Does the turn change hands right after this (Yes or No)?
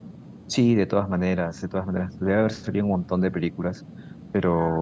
Yes